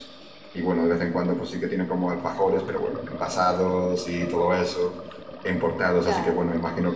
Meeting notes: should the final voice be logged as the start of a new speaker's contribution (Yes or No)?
No